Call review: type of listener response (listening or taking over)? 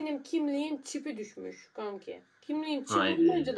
listening